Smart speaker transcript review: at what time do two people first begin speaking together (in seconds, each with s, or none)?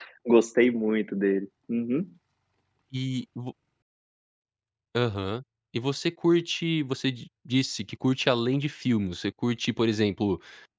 none